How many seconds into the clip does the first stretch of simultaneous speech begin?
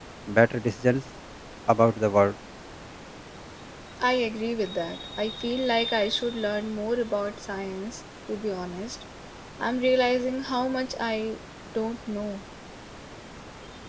none

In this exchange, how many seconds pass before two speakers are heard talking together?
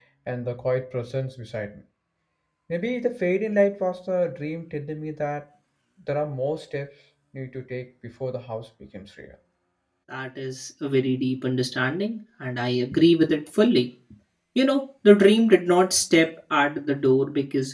none

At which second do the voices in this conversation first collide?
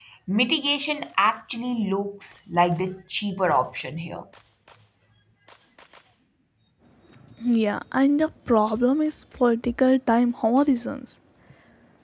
none

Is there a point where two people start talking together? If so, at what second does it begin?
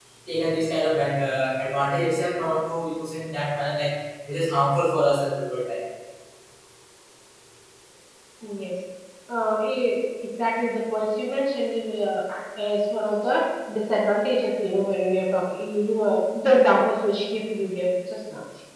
none

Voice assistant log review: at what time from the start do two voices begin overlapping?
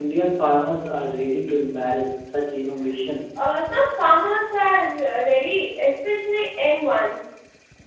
none

